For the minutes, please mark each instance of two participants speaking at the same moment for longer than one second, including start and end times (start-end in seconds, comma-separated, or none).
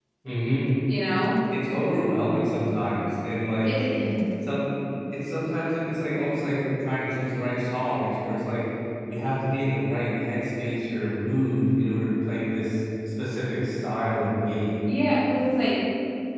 none